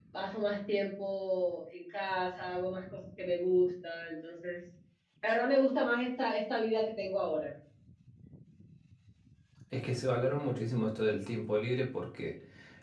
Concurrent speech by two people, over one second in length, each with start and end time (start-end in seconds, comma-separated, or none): none